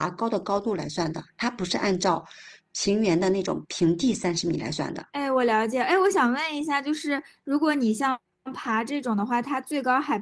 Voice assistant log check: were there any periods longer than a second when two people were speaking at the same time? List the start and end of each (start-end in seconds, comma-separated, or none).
none